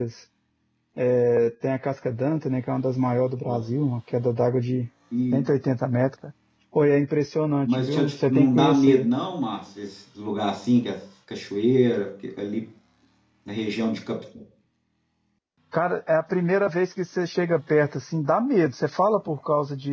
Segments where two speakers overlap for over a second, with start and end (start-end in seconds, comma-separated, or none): 7.7-9.1